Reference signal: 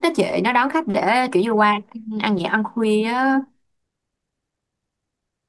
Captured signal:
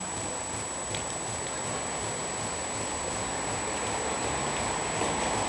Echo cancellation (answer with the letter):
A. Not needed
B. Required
A